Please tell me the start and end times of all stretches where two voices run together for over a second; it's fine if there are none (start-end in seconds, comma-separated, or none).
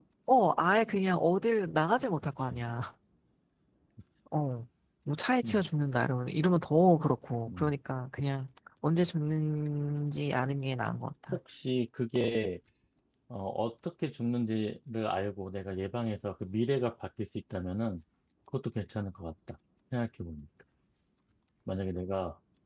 none